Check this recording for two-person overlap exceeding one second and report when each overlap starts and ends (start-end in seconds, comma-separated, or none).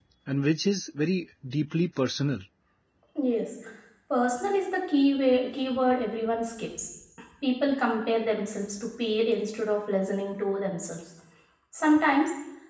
none